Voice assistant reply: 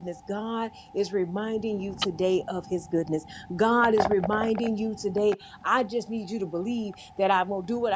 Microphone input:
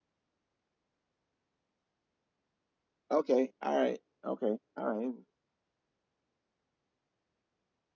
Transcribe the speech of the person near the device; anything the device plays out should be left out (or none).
Okay. All right. Okay. All right.